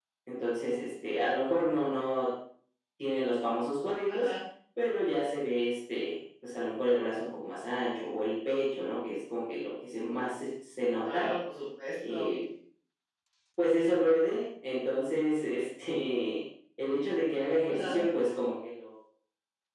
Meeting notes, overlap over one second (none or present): none